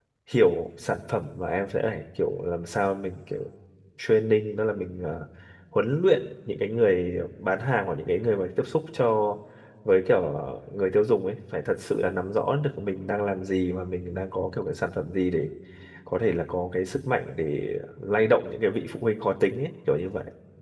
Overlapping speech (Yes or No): No